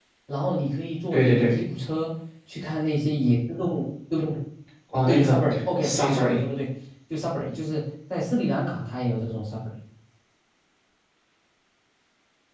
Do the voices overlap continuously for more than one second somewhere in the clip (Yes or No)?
Yes